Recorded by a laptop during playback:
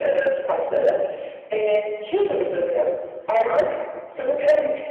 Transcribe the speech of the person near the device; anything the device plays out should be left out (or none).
none